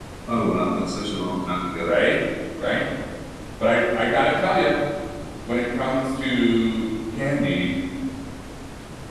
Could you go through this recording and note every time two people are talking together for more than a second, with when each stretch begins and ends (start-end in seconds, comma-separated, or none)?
none